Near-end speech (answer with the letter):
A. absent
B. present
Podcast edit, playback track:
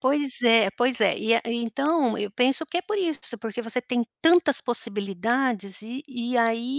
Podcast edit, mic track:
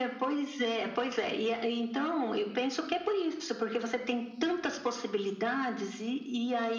A